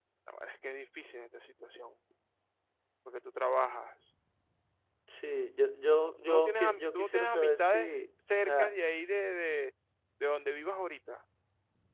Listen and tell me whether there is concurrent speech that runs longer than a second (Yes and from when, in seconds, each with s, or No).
Yes, from 6.3 s